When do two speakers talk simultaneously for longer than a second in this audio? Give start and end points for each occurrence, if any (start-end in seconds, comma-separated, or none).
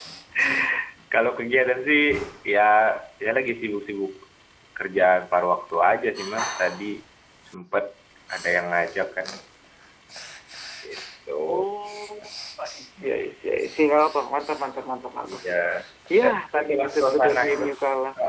16.2-17.6